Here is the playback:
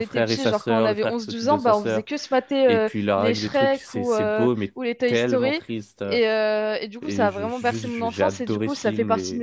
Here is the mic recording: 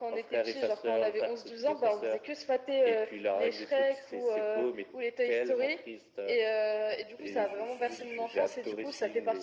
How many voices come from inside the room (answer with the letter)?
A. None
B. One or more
A